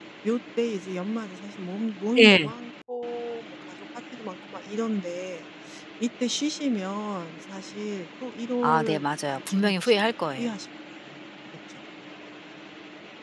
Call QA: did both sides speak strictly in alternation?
No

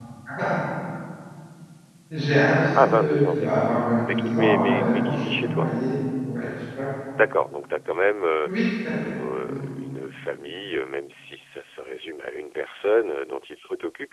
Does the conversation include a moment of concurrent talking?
Yes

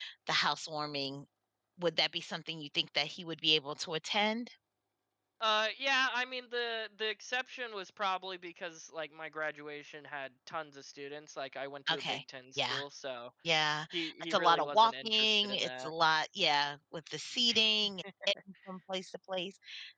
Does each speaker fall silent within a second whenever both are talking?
No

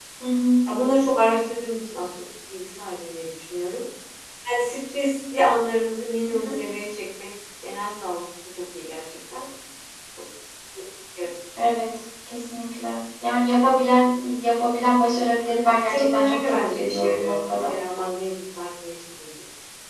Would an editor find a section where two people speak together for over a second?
Yes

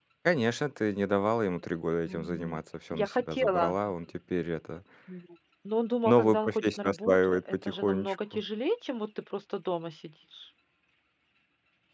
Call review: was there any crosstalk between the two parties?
Yes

